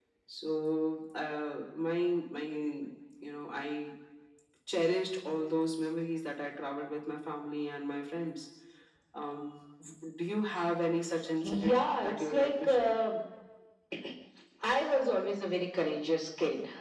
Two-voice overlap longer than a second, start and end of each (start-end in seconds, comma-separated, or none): 11.4-12.9